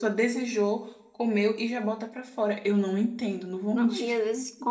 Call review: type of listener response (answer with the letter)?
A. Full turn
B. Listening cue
A